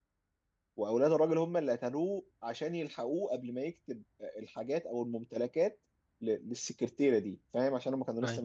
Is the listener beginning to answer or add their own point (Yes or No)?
No